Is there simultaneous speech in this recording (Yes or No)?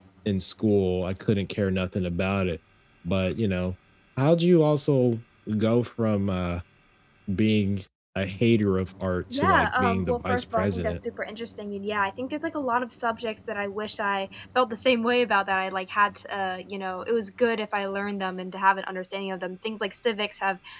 Yes